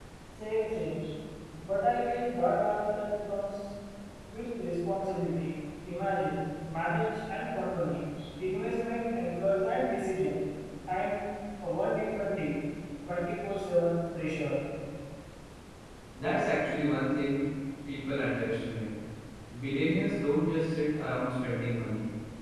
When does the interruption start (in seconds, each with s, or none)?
none